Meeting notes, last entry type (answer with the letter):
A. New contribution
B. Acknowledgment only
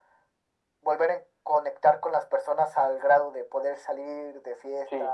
A